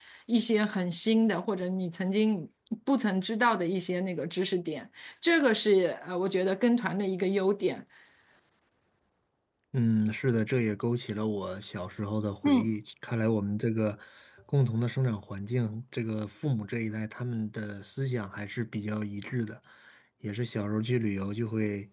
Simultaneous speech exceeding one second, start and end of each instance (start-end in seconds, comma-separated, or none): none